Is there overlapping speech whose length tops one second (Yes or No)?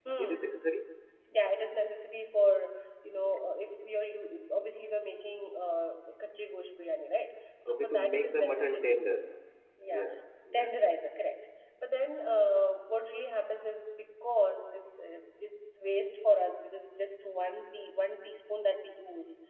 Yes